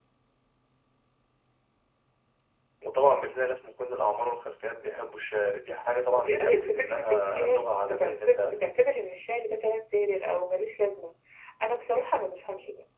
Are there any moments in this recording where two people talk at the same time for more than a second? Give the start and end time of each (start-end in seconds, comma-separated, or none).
6.2-8.6